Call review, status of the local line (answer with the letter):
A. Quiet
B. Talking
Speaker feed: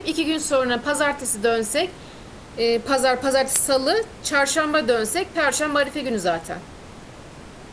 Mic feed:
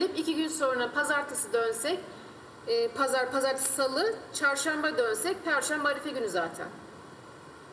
A